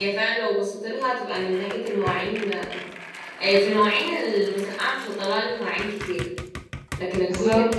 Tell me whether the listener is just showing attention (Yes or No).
Yes